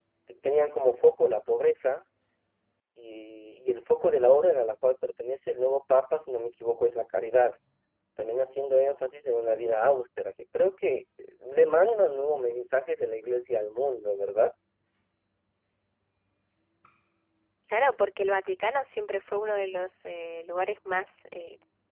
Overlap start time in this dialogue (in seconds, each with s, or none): none